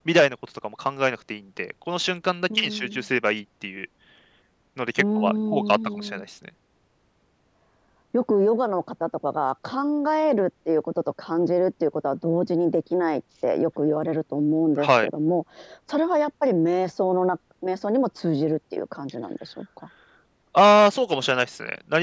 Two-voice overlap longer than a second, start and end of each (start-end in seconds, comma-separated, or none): 5.0-6.2